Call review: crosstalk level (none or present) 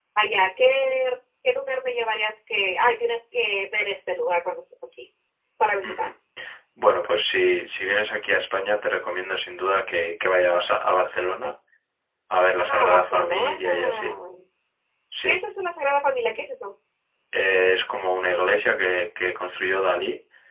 present